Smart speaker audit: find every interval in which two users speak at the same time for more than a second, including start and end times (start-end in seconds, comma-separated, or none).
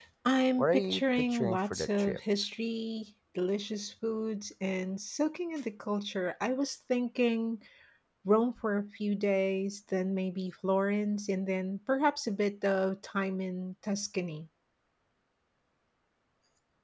0.6-2.2